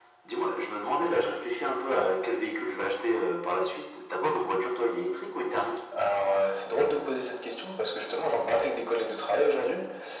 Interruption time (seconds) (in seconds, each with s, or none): none